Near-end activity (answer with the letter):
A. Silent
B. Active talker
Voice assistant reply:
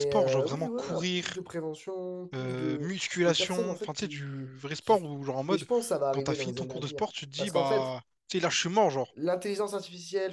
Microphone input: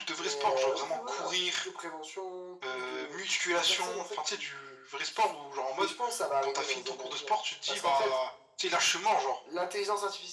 A